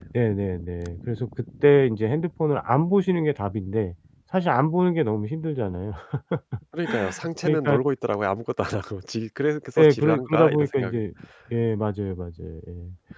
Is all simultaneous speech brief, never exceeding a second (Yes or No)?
No